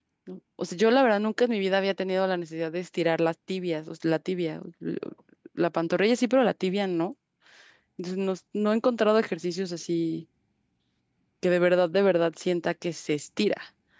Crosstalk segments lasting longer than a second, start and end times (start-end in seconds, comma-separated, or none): none